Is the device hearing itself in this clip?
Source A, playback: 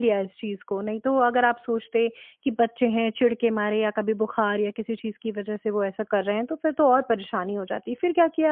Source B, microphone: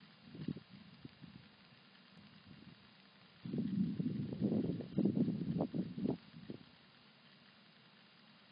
No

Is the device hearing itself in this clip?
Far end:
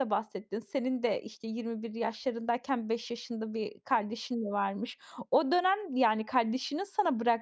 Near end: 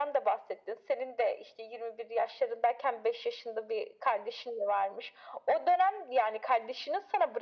Yes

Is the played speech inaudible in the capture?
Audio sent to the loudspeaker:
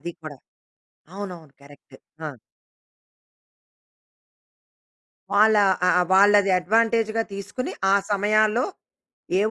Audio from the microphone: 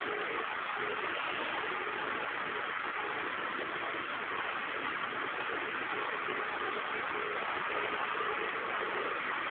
Yes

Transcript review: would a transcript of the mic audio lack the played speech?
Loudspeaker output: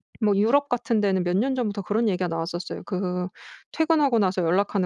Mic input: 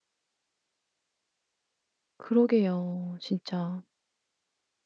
Yes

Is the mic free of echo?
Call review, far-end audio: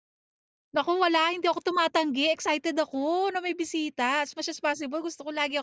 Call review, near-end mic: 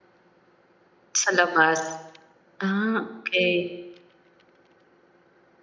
Yes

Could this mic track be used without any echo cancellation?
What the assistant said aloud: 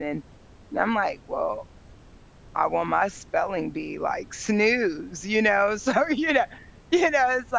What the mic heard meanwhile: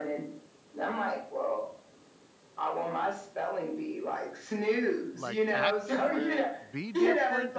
No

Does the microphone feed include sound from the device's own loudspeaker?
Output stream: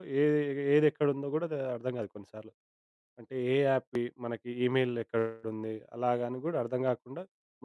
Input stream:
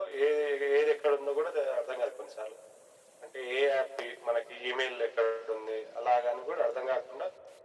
Yes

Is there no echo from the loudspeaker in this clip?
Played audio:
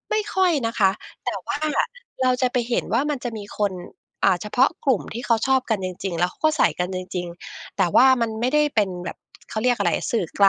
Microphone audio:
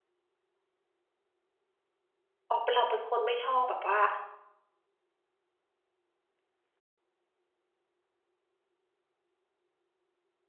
Yes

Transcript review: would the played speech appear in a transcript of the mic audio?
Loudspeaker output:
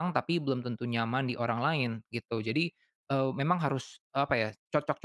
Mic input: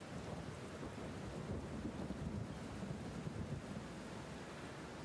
No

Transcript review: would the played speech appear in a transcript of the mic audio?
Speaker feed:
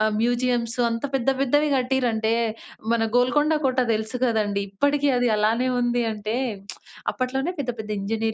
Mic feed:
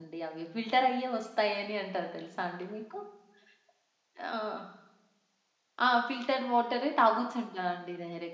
No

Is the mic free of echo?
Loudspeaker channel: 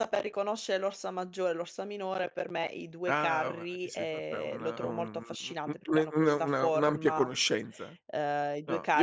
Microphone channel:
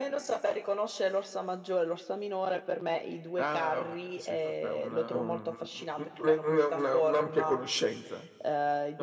No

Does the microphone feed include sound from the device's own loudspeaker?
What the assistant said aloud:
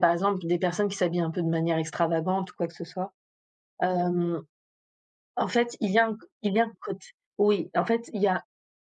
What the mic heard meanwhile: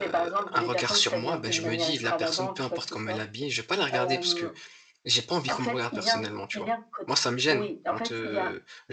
Yes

